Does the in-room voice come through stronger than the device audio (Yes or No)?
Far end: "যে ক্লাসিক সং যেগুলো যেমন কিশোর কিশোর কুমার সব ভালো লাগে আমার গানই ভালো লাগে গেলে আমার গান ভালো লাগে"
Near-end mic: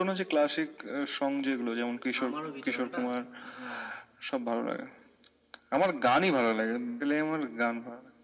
No